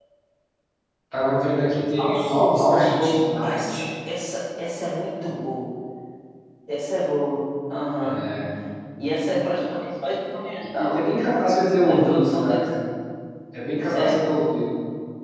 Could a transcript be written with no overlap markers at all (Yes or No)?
No